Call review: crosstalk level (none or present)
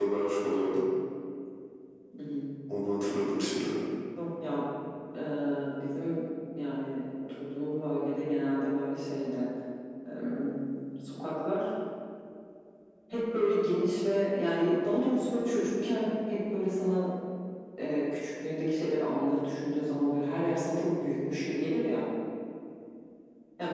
none